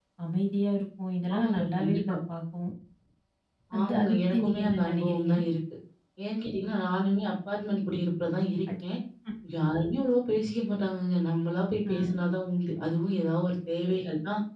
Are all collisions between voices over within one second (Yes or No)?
No